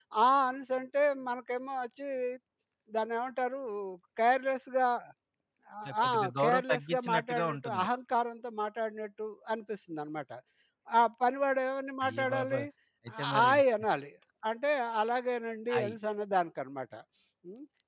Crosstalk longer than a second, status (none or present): present